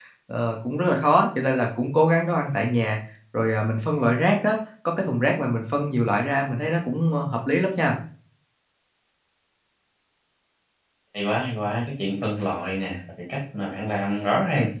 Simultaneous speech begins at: none

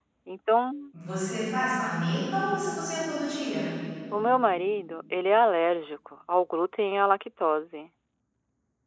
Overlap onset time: none

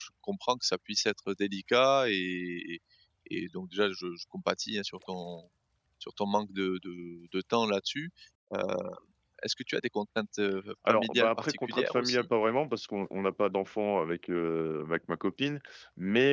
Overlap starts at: 10.9 s

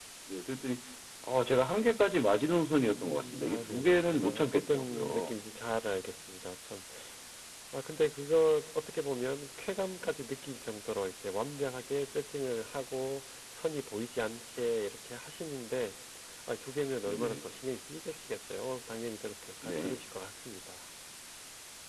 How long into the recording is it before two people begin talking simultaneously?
2.8 s

